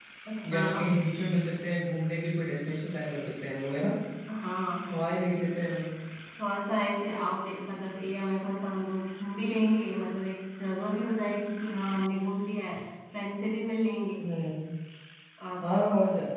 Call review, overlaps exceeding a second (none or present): none